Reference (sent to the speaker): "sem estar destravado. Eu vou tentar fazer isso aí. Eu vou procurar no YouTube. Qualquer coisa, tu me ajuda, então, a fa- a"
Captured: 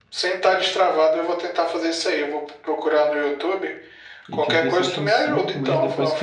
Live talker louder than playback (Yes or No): No